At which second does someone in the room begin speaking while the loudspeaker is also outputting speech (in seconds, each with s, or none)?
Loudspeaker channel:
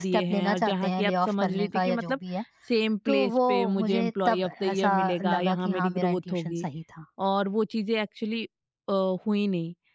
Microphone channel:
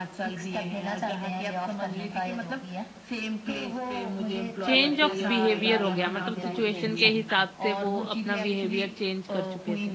4.6 s